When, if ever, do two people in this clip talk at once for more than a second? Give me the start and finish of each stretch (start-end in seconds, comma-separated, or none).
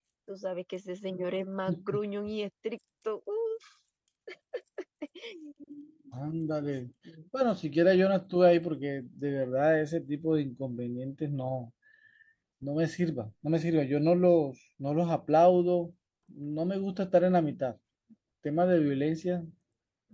none